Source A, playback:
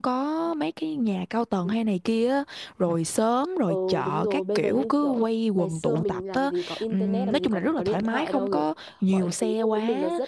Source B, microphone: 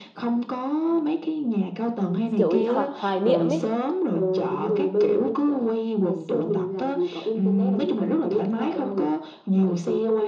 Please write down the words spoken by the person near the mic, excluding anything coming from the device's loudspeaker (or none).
kiểu bị ho hoài niệm ấy